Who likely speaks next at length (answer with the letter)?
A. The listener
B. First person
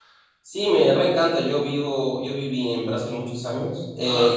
B